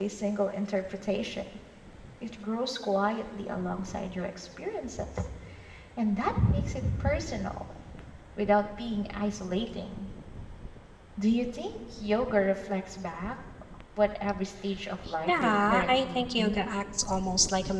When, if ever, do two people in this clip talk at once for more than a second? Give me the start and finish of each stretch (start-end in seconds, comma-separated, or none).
15.3-16.8